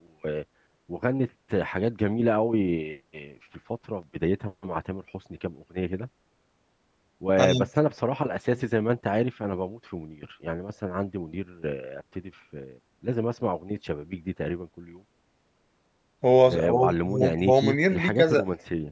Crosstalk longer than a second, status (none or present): present